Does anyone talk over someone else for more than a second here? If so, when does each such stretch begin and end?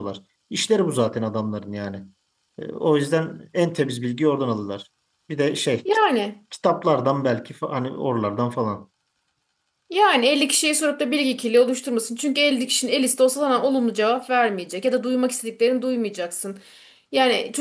none

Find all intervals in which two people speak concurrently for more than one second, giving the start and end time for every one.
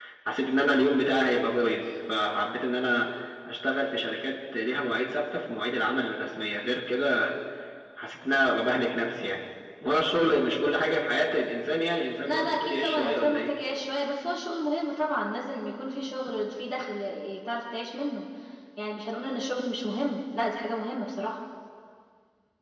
12.2-13.5

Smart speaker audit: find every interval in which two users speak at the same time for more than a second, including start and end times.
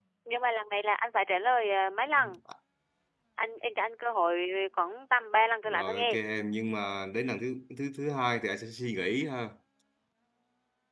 none

